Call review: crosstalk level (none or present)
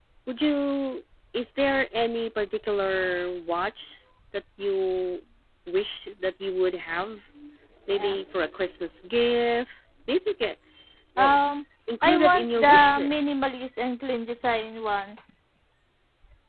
present